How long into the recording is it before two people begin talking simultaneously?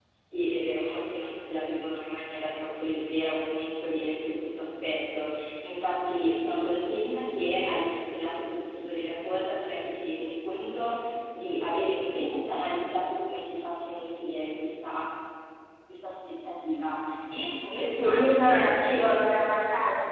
17.8 s

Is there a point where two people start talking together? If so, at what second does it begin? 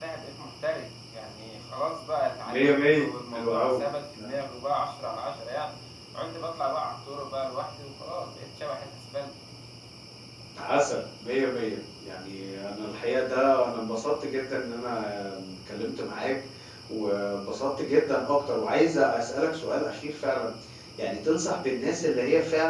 2.4 s

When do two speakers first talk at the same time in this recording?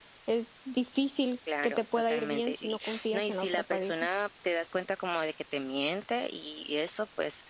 1.5 s

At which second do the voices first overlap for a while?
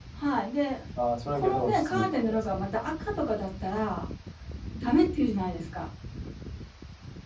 1.3 s

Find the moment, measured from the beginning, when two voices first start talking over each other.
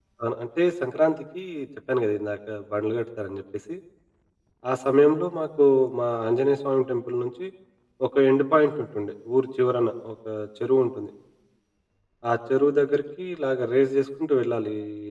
none

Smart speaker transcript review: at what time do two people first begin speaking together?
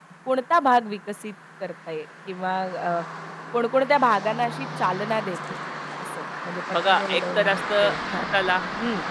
6.8 s

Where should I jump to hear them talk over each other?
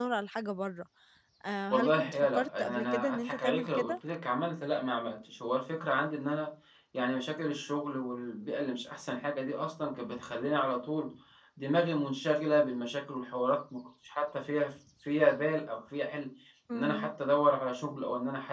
1.7 s

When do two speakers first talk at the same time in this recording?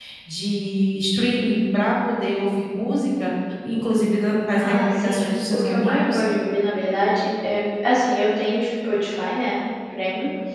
4.6 s

